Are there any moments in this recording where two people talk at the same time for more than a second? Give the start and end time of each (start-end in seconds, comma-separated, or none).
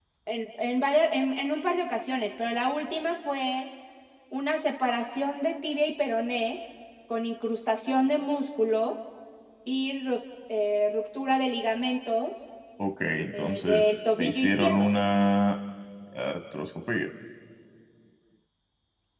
13.3-14.9